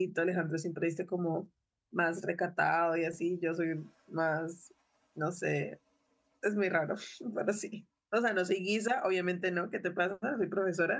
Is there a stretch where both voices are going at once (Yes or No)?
No